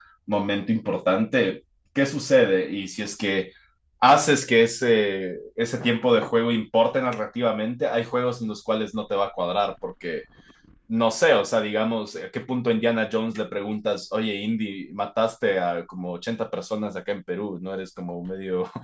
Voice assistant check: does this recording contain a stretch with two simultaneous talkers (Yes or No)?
No